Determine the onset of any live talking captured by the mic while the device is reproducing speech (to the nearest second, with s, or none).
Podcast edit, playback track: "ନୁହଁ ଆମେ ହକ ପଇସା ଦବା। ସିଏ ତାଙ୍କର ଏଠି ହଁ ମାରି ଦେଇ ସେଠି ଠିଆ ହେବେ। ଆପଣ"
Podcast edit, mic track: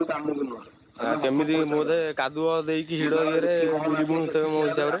1 s